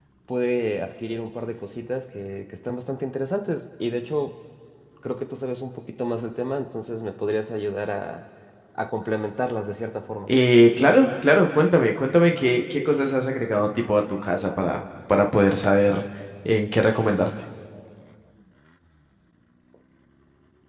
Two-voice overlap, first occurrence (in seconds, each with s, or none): none